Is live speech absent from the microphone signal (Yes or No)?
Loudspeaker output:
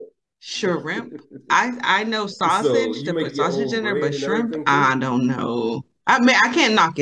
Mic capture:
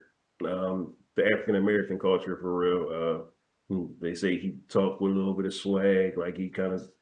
No